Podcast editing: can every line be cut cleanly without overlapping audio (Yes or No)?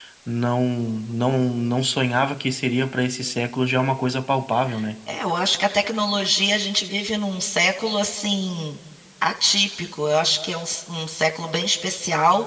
Yes